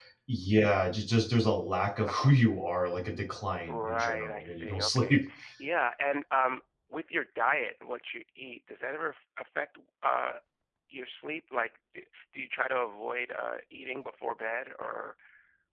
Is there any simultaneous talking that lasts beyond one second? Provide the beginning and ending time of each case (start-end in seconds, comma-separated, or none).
3.7-5.2